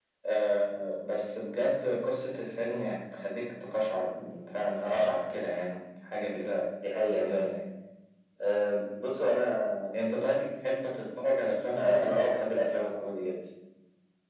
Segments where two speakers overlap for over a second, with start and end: none

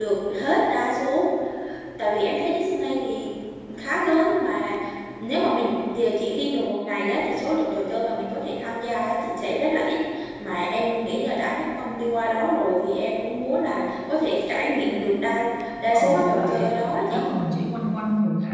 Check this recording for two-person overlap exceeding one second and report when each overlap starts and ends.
15.9-17.2

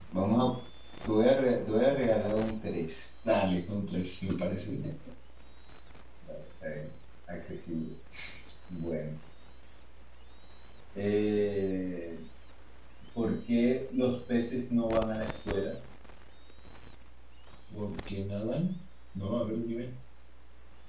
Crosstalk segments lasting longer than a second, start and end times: none

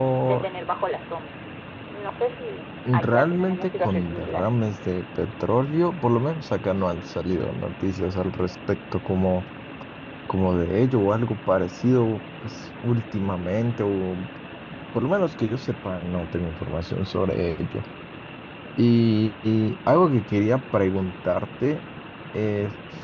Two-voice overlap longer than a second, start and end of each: 2.9-4.5

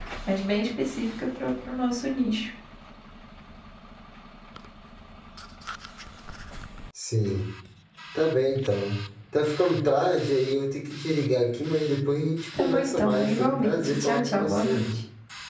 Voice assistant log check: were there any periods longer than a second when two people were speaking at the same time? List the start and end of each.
12.6-15.0

